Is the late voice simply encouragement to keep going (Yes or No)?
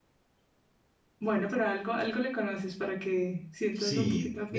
No